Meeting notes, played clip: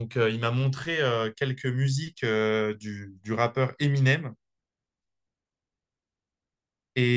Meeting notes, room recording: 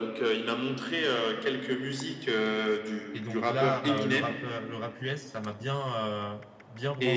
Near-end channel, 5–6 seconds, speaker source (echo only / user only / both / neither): user only